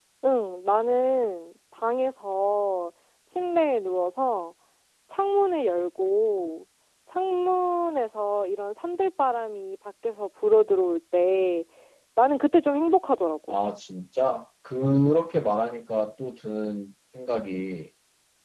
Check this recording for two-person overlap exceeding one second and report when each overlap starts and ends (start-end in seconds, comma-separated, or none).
none